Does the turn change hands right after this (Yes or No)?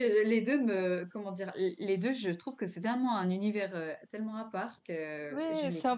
Yes